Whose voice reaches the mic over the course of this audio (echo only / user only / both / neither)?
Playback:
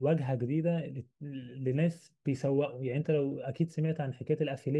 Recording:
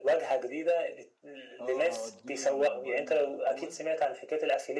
both